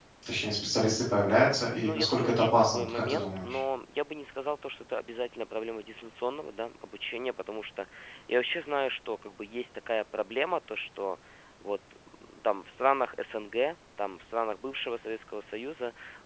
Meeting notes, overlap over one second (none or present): present